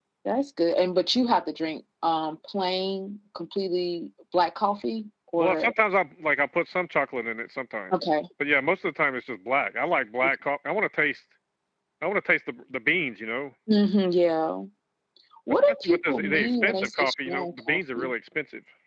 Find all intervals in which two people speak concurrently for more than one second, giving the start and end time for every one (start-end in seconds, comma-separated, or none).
15.7-18.1